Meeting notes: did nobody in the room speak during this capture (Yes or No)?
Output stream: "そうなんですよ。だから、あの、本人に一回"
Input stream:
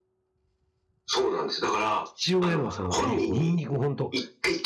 No